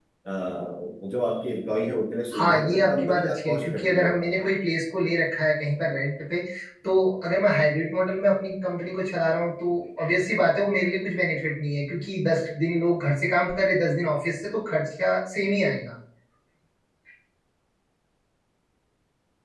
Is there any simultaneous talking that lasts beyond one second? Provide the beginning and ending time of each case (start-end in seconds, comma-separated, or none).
2.3-4.3